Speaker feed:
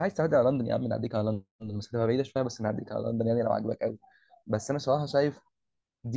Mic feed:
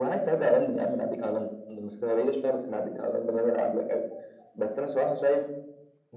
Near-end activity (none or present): none